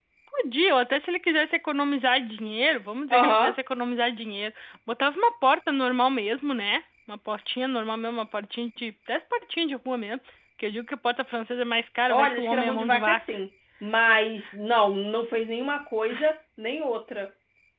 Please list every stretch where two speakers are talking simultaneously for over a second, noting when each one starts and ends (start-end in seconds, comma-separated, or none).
12.1-13.3